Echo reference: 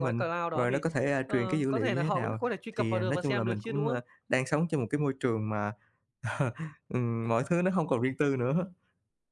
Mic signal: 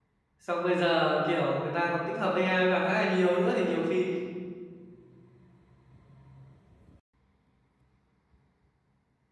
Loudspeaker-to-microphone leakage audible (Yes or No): No